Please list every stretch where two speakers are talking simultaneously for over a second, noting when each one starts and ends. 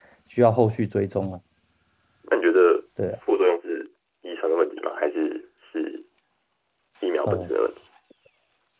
none

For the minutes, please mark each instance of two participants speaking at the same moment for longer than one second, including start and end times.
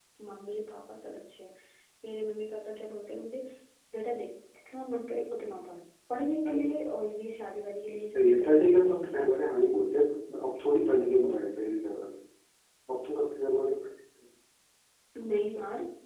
8.1-9.5

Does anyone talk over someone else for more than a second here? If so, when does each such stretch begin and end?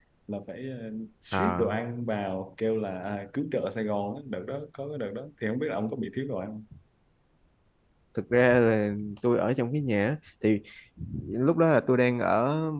none

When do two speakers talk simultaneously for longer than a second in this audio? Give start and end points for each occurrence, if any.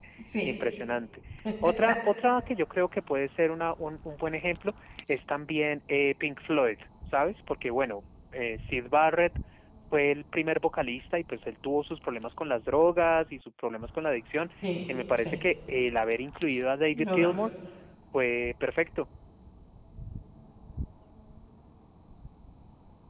none

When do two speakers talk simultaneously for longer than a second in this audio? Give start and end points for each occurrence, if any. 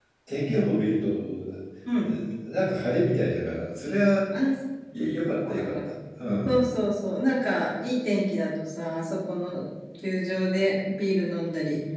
none

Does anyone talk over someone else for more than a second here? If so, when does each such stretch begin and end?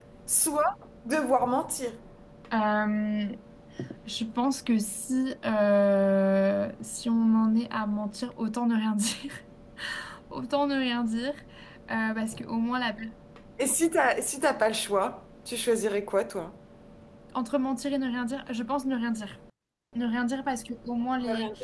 none

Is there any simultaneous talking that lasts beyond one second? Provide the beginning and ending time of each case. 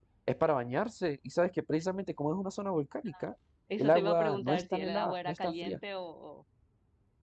3.8-5.8

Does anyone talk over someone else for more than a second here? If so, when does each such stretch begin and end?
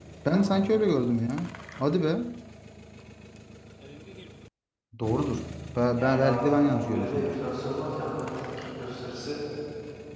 5.9-7.4

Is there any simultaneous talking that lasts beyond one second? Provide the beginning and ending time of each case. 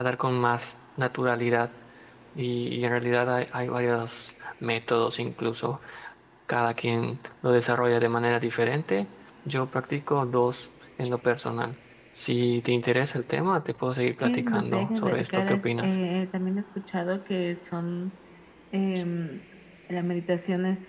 14.2-16.0

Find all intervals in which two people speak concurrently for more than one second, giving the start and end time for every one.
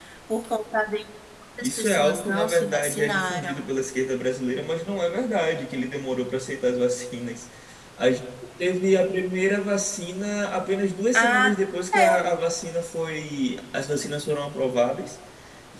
1.6-3.7

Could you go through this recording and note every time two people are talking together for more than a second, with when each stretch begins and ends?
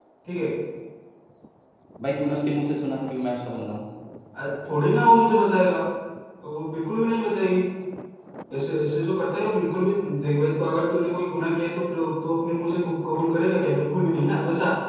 none

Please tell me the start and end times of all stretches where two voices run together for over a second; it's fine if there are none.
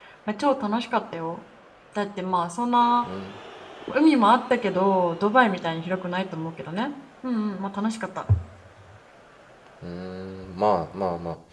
none

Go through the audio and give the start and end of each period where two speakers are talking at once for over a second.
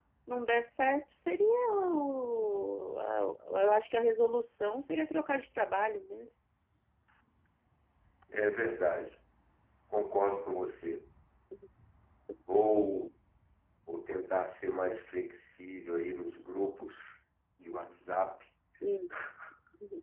none

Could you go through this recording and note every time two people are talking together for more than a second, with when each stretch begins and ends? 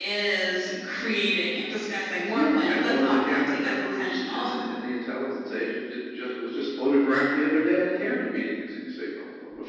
2.3-4.5

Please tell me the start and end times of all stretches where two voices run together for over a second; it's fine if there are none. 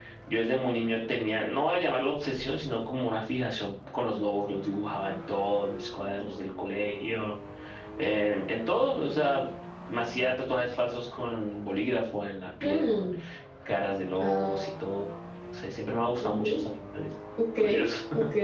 none

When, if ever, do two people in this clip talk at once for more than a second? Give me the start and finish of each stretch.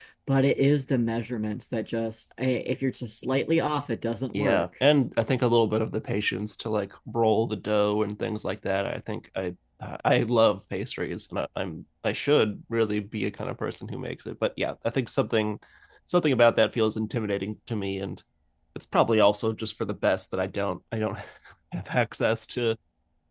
none

